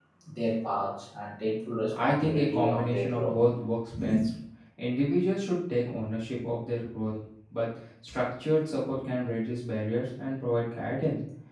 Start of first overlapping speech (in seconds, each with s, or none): 1.9 s